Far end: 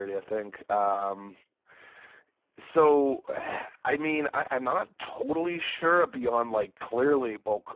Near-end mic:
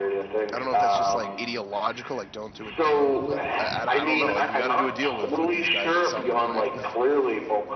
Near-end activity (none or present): present